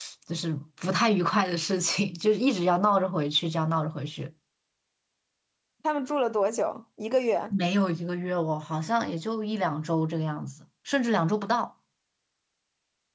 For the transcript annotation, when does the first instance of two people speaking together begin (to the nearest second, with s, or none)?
none